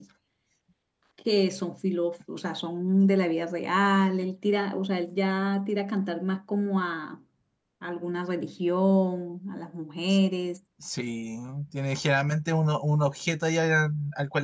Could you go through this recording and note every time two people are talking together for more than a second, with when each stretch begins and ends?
none

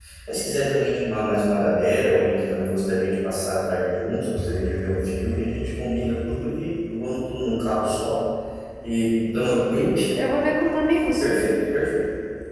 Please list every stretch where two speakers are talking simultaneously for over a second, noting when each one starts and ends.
none

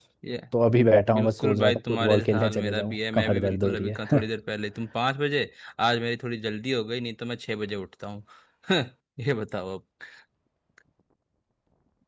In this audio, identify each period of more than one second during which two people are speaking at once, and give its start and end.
1.1-4.3

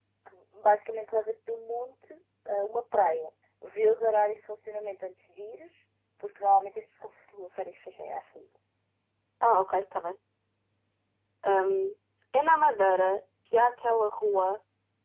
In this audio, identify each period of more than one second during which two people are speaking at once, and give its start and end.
none

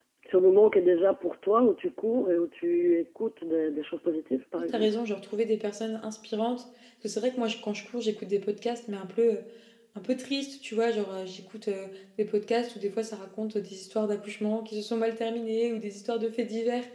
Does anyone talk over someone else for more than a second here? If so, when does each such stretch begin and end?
none

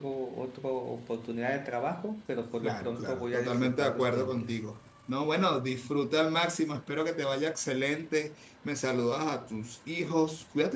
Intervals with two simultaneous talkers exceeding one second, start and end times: 2.6-4.6

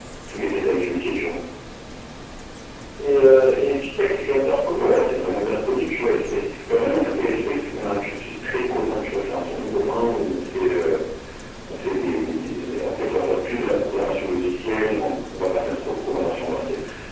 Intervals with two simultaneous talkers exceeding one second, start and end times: none

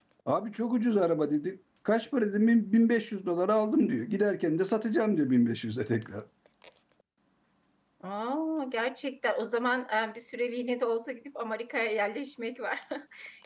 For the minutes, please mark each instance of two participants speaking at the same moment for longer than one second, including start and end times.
none

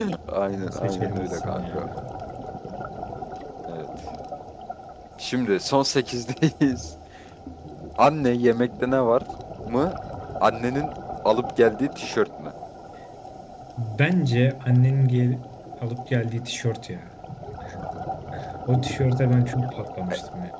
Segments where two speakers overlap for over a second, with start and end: 0.5-1.8

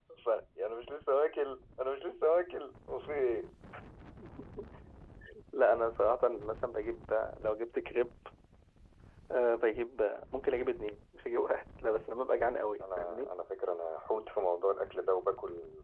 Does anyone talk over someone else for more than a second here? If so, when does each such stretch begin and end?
none

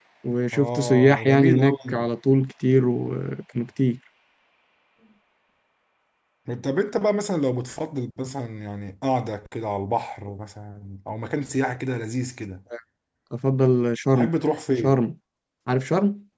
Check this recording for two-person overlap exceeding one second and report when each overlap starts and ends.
0.5-2.1

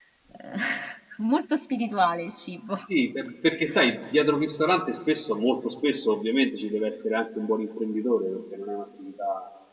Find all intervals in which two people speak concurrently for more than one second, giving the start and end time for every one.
none

